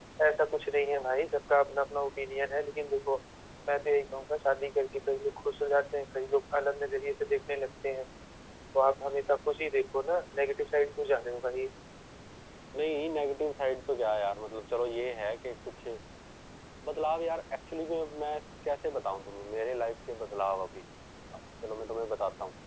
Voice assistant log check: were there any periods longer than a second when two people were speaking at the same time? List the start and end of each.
none

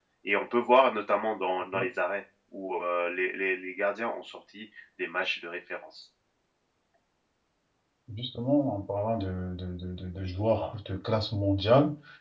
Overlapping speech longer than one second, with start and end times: none

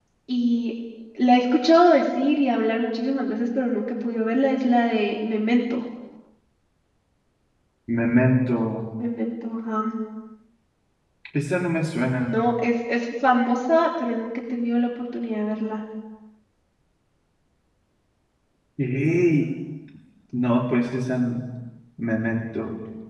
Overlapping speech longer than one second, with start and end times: none

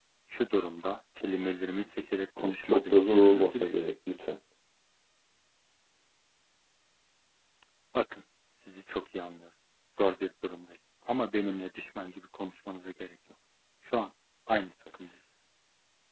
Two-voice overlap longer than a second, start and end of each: 2.4-3.8

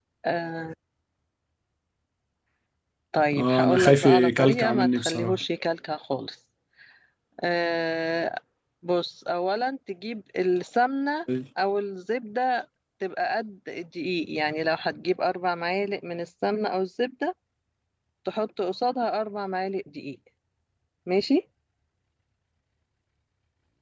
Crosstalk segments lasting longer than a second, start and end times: 3.4-5.4

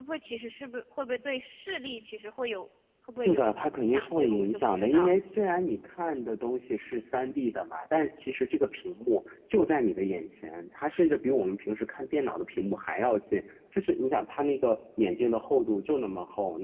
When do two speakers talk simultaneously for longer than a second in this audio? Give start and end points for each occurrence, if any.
3.2-5.2

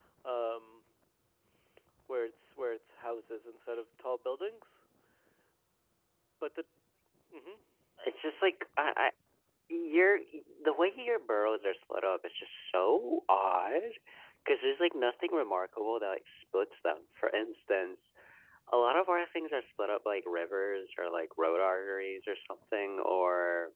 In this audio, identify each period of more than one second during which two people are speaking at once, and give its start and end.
none

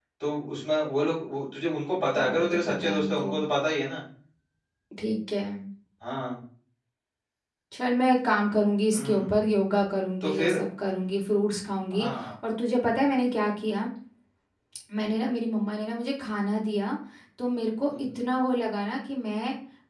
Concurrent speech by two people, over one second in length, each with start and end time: 2.1-3.3

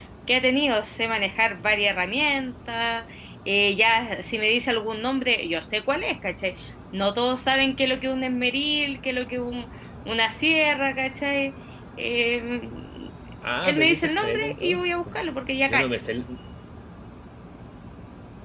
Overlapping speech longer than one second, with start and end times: 13.6-15.2

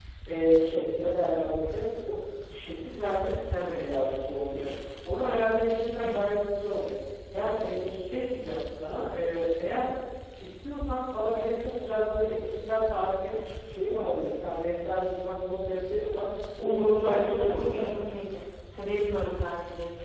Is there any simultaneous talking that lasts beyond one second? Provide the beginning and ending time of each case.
16.6-18.1

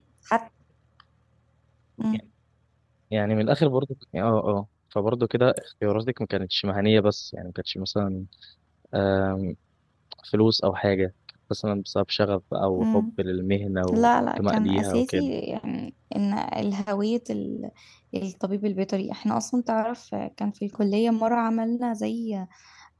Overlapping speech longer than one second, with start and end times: 13.9-15.3

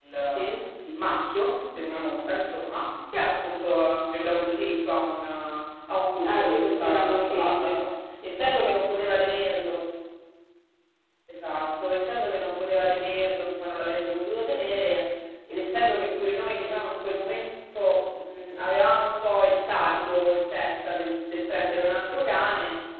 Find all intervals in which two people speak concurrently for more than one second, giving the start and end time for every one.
6.2-7.8

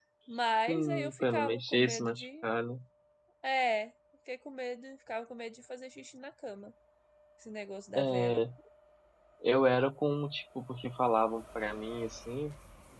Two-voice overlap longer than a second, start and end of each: 0.7-2.4

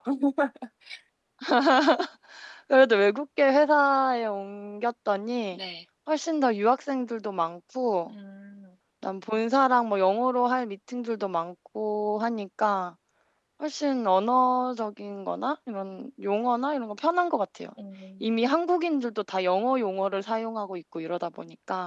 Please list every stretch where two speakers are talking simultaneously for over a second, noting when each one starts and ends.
none

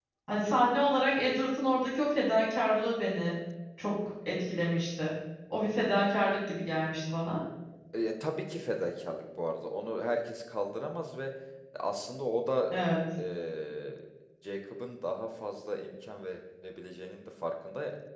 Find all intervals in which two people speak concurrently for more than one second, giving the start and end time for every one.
none

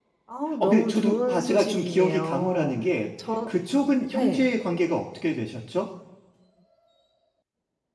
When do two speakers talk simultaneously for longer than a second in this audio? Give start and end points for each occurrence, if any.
0.6-2.8

